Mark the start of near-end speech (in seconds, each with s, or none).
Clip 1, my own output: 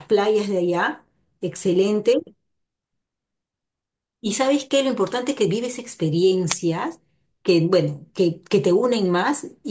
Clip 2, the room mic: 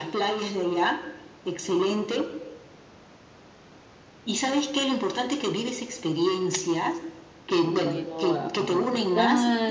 7.6 s